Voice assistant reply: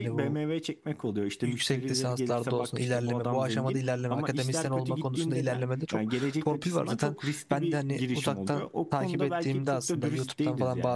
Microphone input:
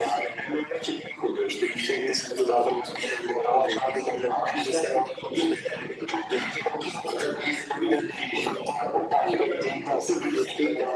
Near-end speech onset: none

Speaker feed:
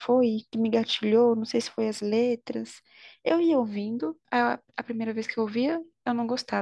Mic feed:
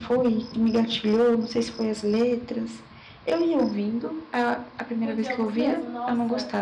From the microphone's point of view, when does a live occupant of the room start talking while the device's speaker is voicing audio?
5.0 s

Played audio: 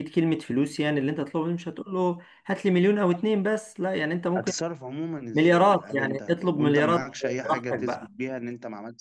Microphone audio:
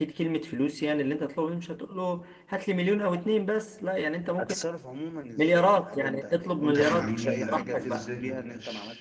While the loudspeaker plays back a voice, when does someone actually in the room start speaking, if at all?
6.8 s

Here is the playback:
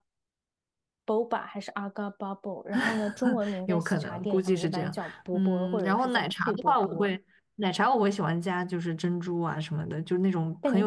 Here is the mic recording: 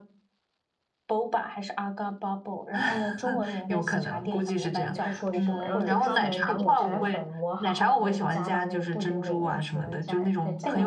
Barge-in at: 4.9 s

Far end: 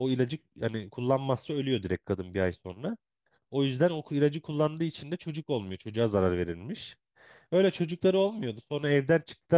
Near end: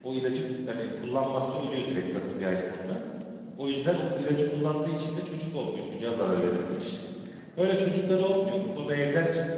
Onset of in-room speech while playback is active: none

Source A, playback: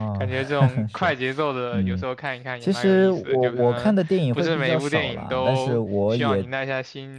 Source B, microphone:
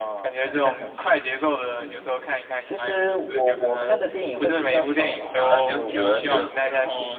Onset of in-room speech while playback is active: 5.3 s

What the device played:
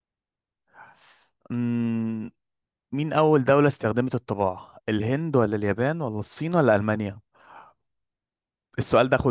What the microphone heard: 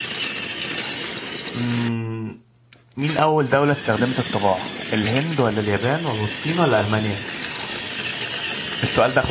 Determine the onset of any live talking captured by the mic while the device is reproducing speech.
none

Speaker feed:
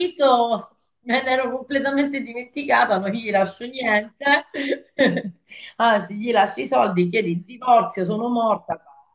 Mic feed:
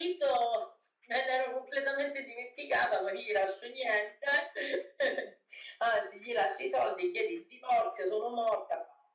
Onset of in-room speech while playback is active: none

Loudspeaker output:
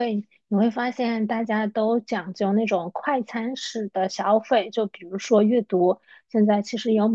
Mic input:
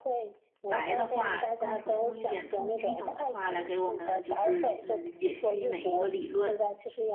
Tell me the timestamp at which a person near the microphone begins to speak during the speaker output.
0.7 s

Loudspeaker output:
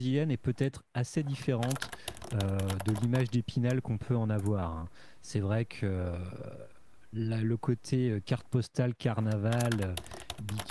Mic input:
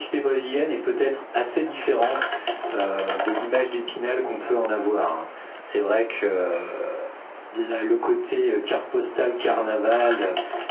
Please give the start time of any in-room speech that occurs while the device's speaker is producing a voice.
none

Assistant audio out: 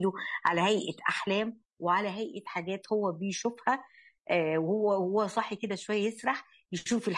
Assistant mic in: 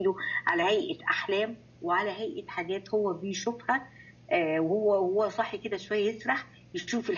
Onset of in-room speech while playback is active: none

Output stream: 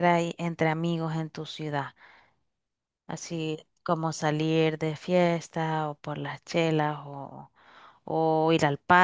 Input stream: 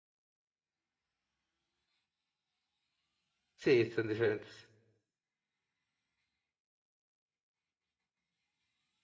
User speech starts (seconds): 3.6 s

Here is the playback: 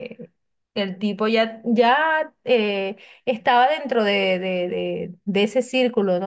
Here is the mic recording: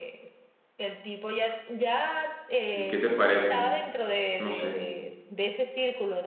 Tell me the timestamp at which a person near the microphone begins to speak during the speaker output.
2.7 s

